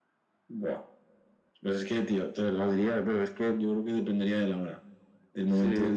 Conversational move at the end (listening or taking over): listening